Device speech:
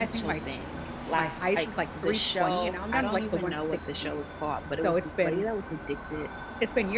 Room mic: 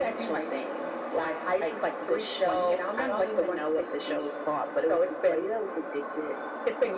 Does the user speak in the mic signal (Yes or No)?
No